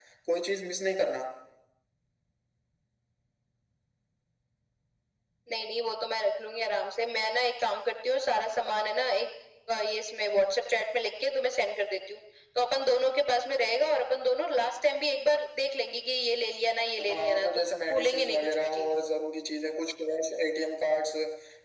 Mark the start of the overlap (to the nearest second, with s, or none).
17 s